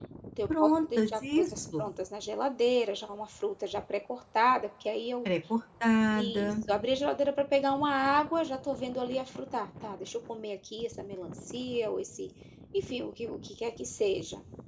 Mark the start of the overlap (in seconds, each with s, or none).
0.6 s